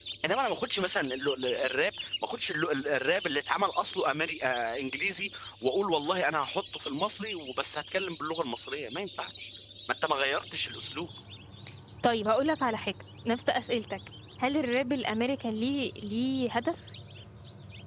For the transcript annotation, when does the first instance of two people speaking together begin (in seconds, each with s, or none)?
none